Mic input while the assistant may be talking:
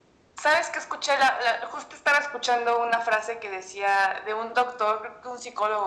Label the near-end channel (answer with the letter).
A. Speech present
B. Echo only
B